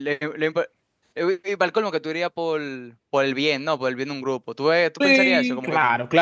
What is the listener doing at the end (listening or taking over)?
taking over